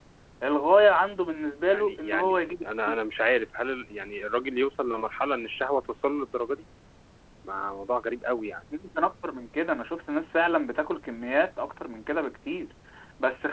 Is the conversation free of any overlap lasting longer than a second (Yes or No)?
No